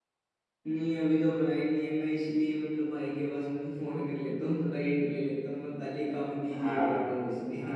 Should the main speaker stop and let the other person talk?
Yes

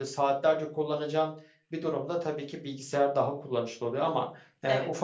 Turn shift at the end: No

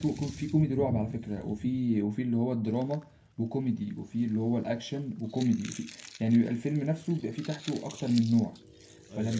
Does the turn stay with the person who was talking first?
Yes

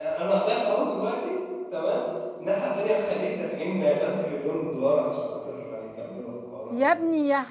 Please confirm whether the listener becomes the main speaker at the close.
Yes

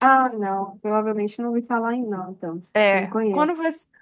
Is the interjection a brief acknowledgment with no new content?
No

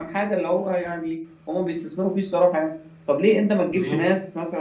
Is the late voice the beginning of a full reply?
No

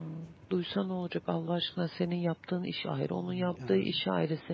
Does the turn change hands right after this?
No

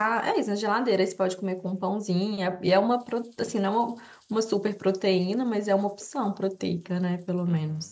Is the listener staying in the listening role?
No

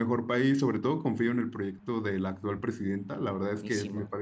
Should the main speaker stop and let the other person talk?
No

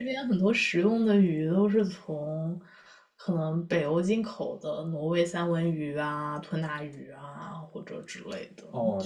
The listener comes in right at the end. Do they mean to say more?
Yes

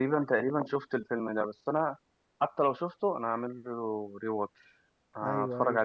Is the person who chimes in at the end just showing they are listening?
No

